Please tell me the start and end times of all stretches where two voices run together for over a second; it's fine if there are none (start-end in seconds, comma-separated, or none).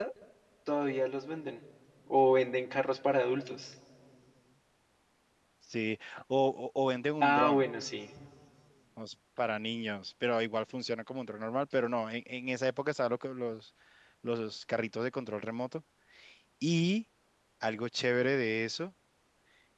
none